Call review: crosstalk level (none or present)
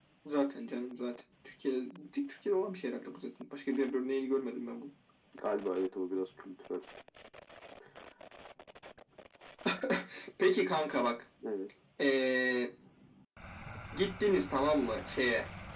none